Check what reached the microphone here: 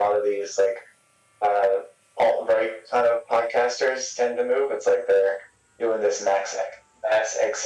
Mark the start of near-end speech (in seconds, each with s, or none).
none